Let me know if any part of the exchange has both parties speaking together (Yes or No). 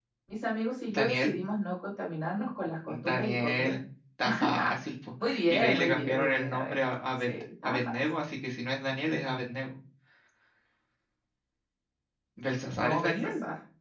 Yes